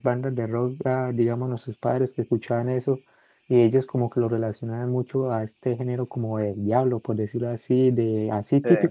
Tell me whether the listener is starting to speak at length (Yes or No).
No